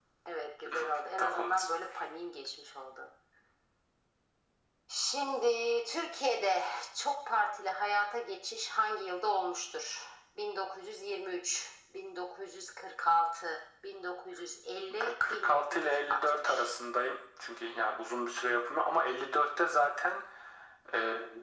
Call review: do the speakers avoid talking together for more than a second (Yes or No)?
No